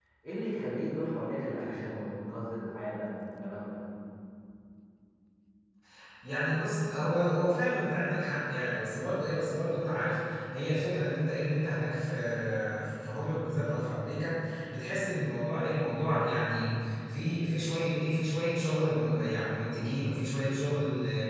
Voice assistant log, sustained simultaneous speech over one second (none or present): none